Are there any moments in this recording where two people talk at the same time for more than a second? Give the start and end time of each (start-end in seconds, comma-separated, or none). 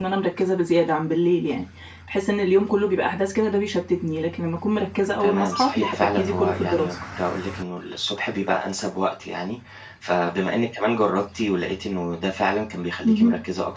5.2-6.9